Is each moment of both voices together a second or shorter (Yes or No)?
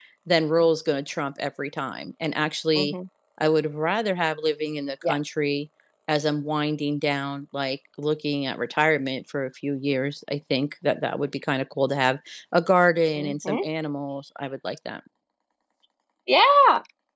Yes